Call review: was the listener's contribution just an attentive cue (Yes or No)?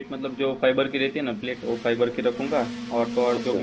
Yes